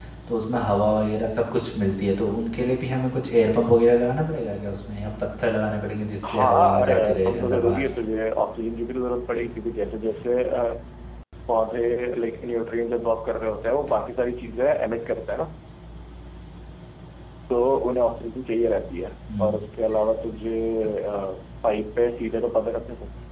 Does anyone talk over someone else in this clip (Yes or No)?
Yes